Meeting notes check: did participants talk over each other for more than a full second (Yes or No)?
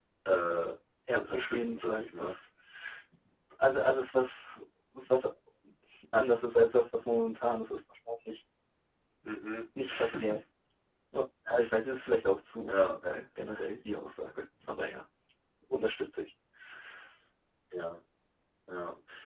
Yes